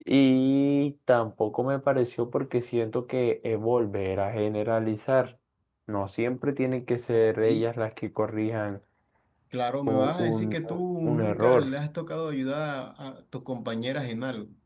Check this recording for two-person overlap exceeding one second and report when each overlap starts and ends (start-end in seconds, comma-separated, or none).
9.9-11.7